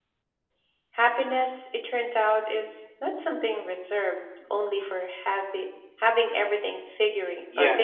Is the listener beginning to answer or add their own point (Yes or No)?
Yes